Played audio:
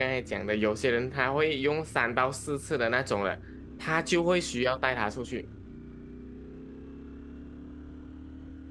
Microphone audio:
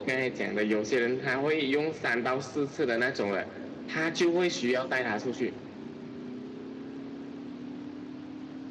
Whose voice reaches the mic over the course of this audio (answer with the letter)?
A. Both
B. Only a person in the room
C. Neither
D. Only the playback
D